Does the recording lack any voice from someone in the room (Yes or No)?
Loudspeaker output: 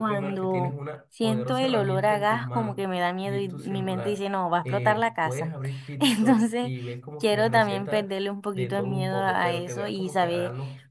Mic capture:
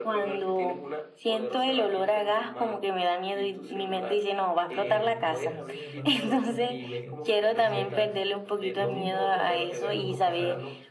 No